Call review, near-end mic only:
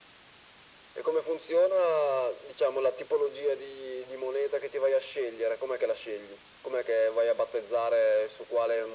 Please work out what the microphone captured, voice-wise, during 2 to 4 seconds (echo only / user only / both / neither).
echo only